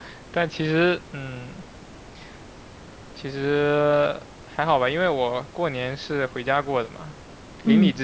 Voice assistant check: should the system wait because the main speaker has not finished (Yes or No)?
Yes